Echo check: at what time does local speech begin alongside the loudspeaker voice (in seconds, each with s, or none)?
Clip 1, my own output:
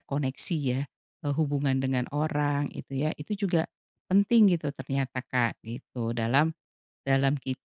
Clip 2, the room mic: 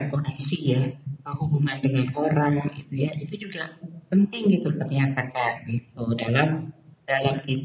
none